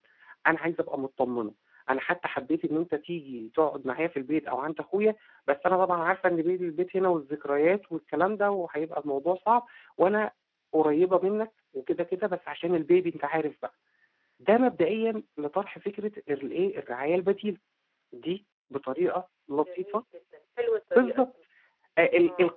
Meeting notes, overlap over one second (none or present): none